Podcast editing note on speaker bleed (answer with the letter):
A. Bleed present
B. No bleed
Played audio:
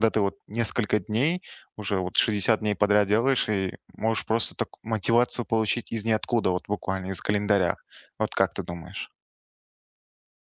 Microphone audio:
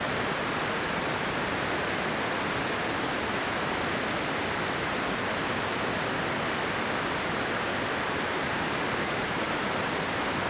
B